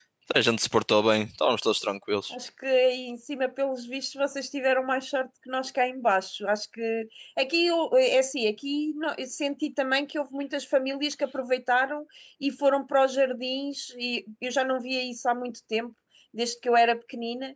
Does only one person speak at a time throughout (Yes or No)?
Yes